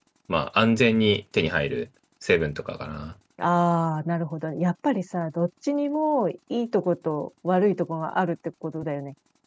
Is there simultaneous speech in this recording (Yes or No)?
No